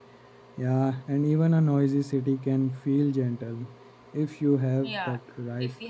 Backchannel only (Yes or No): No